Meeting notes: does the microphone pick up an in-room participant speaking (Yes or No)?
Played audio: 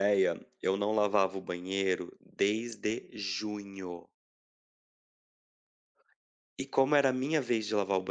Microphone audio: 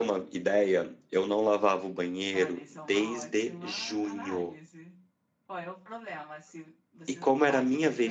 Yes